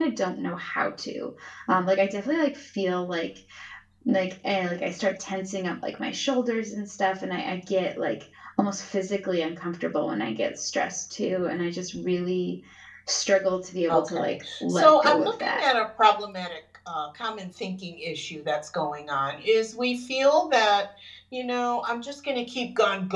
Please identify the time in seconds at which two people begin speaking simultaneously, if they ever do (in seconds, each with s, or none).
13.9 s